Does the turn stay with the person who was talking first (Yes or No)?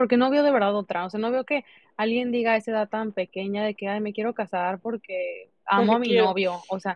Yes